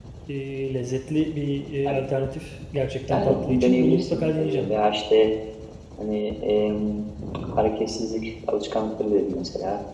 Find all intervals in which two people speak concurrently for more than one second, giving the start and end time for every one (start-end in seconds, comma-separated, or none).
3.1-4.7